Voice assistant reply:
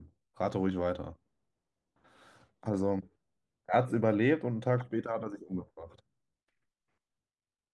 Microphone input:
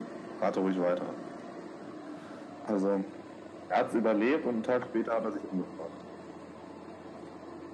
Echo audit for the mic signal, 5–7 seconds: echo only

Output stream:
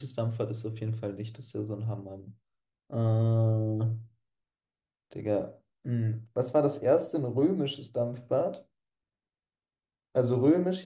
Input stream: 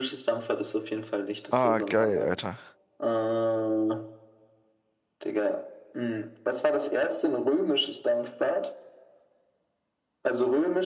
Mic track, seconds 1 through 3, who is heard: both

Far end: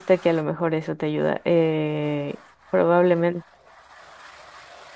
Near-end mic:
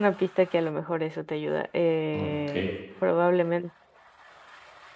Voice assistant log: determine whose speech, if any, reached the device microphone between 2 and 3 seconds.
both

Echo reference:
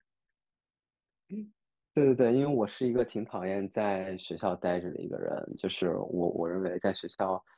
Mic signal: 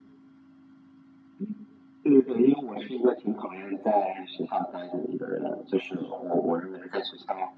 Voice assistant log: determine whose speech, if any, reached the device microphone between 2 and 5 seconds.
echo only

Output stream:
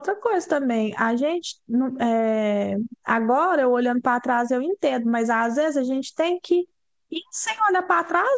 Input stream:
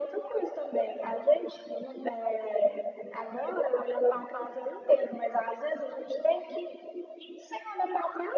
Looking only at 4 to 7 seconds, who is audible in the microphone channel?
echo only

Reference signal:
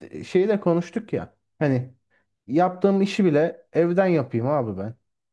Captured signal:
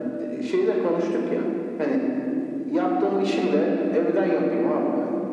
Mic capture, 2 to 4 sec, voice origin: echo only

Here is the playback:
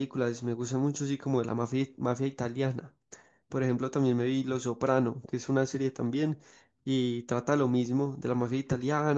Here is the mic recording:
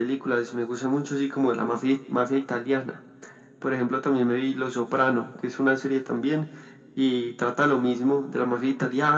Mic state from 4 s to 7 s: echo only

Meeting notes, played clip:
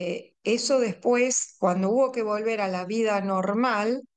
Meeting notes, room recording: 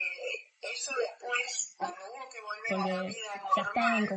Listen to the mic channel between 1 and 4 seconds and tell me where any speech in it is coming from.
both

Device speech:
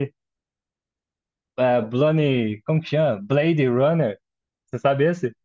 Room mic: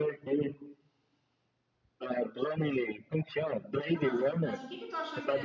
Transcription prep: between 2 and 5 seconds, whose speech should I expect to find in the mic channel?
both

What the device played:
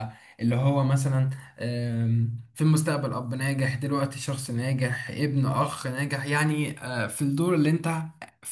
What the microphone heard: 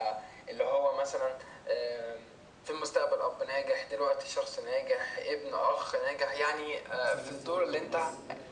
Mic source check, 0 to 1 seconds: echo only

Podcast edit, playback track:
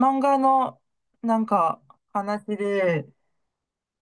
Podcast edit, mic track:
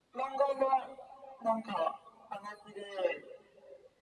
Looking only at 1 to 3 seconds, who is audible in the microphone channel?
echo only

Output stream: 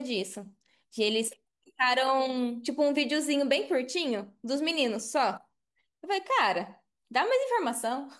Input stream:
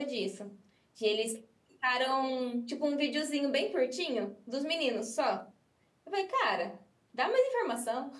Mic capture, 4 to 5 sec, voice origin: echo only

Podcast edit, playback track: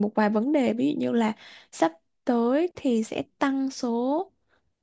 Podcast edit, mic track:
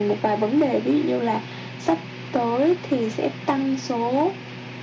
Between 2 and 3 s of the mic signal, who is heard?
echo only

